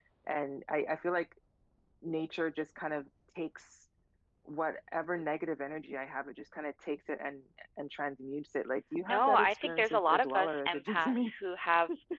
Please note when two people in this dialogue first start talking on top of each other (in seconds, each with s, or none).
9.1 s